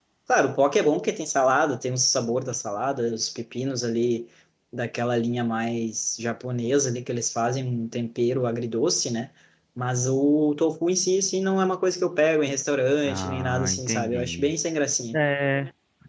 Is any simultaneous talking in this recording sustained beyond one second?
Yes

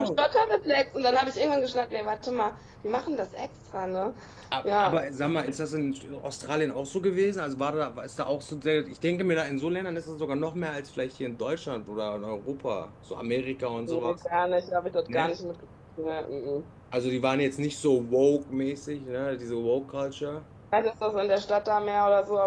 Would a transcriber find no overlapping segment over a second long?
Yes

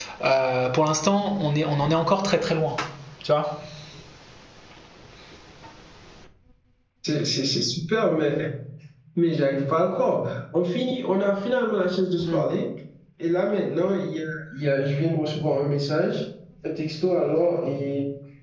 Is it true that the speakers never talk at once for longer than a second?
Yes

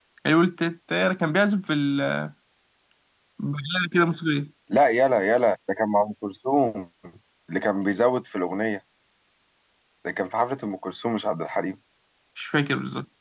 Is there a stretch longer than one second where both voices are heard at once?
No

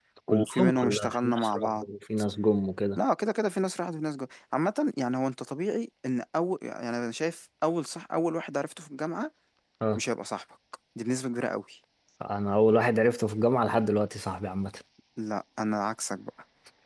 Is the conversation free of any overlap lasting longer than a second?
No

